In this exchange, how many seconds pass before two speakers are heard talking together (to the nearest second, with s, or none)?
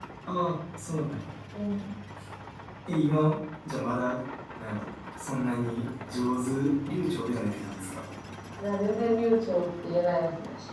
none